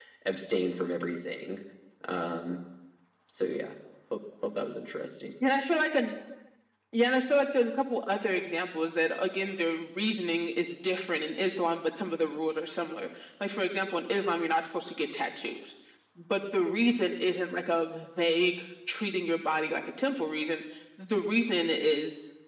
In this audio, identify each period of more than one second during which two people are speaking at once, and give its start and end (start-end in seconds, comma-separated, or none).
none